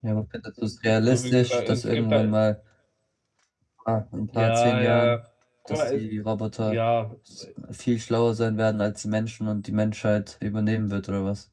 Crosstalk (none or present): present